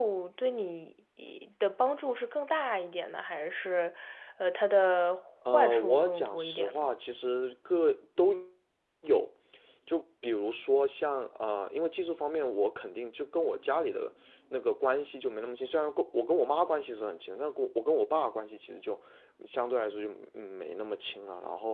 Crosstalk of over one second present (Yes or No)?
Yes